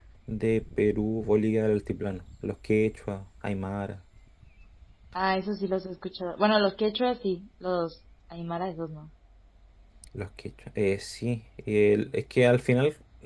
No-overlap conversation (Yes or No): Yes